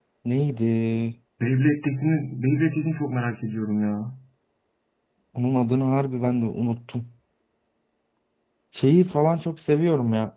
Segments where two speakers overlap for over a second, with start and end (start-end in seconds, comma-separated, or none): none